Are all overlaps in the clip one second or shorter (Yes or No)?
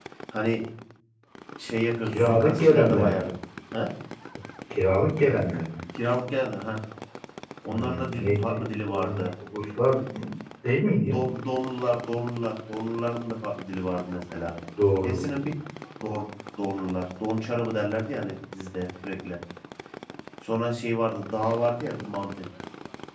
No